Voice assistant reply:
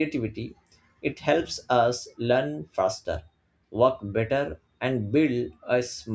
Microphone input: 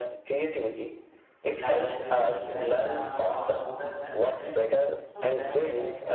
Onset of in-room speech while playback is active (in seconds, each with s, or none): 1.6 s